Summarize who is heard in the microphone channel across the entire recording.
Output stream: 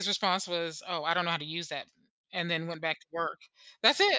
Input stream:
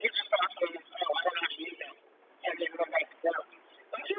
echo only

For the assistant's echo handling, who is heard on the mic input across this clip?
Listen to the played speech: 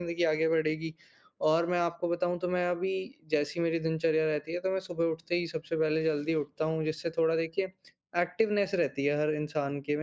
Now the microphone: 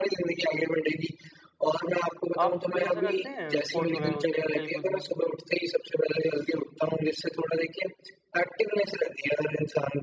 both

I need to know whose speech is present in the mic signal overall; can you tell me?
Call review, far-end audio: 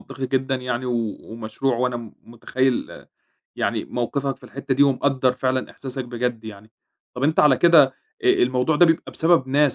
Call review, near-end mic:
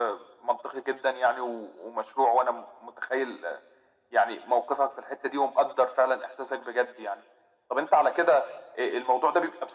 echo only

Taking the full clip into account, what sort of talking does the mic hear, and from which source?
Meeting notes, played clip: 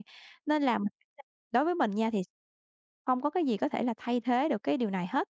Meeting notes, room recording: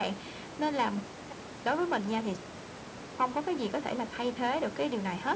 echo only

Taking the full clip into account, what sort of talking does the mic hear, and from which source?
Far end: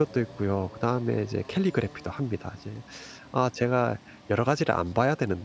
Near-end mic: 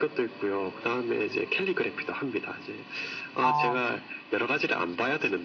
both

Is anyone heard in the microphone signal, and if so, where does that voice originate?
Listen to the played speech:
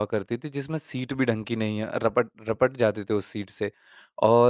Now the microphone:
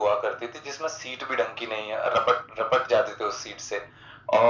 echo only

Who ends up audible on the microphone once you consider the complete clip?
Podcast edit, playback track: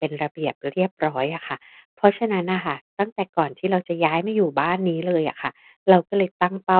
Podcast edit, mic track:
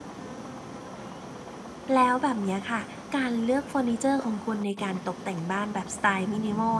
user only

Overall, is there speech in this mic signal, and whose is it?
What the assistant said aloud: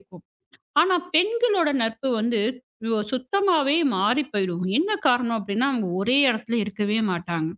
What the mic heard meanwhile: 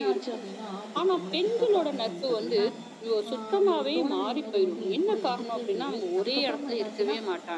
both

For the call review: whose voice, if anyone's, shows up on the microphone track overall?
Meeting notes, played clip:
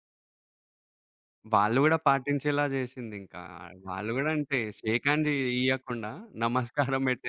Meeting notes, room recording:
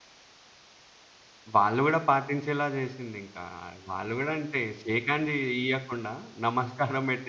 echo only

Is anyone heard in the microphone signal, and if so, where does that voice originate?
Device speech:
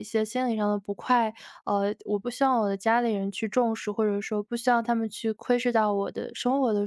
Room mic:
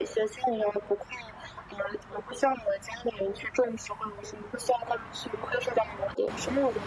echo only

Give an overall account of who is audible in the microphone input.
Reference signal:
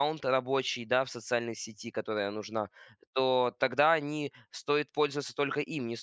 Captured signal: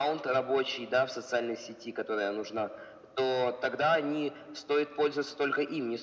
echo only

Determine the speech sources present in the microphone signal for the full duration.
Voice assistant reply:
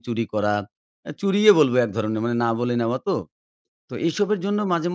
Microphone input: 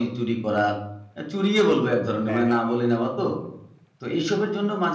both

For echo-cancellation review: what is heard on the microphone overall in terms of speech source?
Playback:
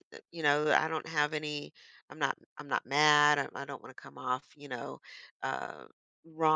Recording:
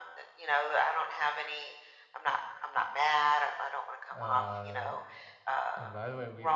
both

